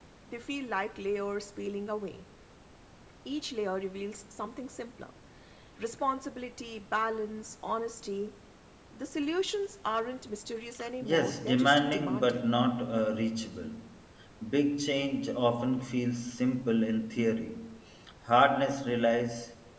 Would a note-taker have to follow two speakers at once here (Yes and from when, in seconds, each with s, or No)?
Yes, from 11.0 s